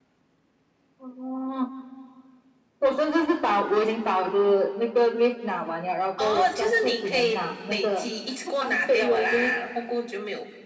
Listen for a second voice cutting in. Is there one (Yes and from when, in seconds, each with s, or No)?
Yes, from 6.2 s